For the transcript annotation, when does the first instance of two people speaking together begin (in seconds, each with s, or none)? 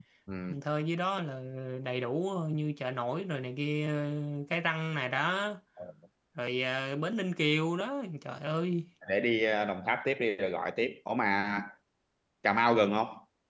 none